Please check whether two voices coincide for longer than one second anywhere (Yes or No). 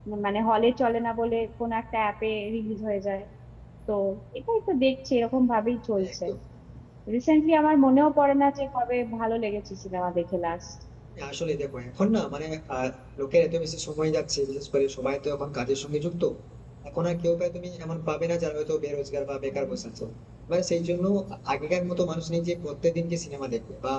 No